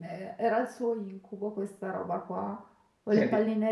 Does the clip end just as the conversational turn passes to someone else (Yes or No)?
No